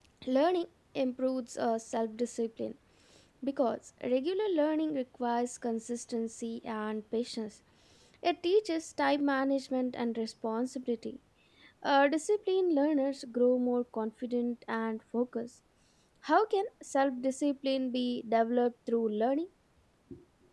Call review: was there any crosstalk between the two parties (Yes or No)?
No